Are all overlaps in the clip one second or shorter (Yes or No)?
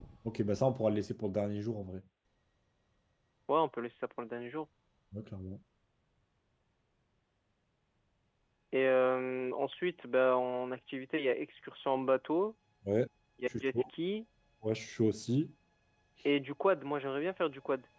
Yes